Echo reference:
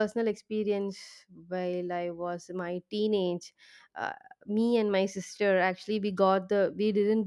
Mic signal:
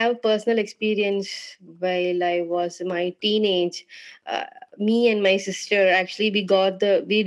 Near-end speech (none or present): none